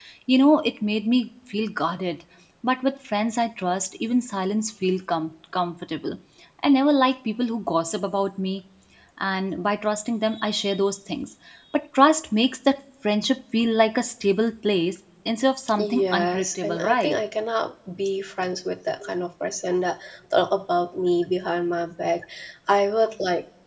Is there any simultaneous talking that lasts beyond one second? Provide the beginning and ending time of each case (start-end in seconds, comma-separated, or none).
15.8-17.2